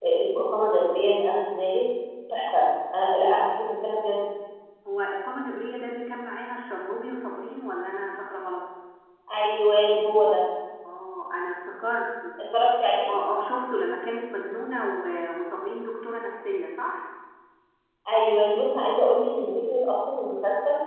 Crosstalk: none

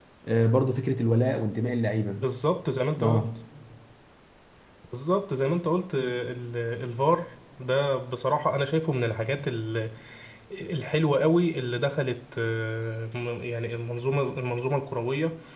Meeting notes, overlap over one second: none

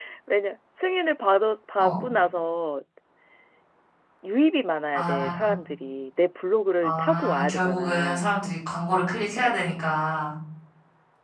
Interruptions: present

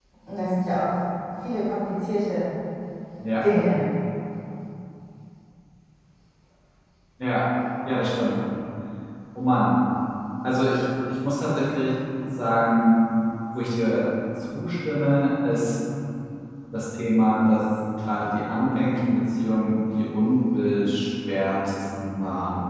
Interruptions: none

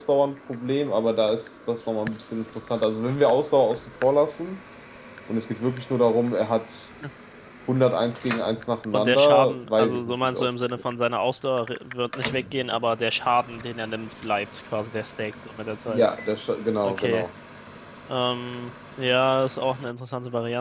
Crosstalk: present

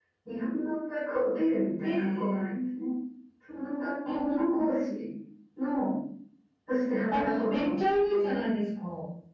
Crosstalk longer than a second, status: present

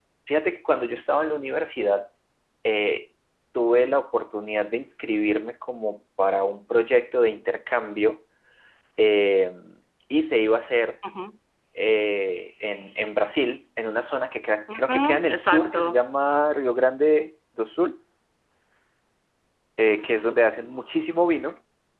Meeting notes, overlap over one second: present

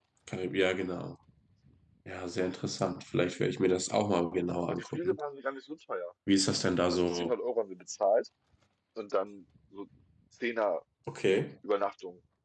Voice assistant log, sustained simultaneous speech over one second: none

